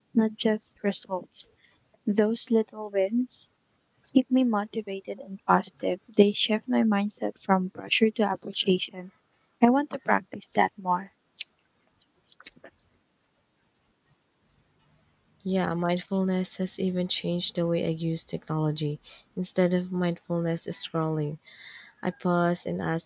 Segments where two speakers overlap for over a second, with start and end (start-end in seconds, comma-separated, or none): none